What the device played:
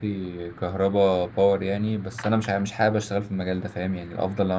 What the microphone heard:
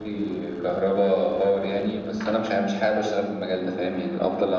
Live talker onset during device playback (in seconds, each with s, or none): none